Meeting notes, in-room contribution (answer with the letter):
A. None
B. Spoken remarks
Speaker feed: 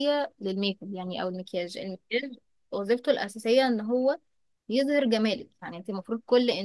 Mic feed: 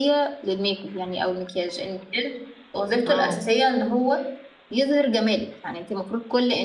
B